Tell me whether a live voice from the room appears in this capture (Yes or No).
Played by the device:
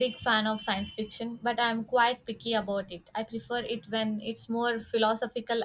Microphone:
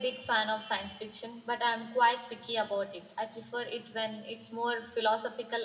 No